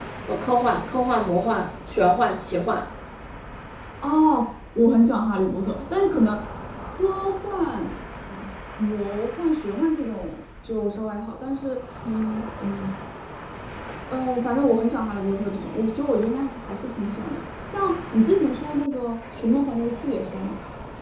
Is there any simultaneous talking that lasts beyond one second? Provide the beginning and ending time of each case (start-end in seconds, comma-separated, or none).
none